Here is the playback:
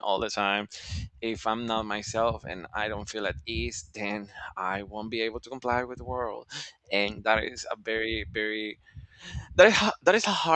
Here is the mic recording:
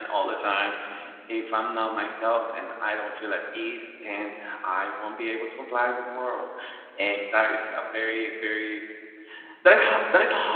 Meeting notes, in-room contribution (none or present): none